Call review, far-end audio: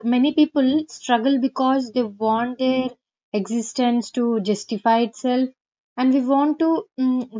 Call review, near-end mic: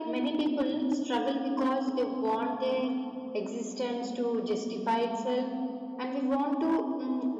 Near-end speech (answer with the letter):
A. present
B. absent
B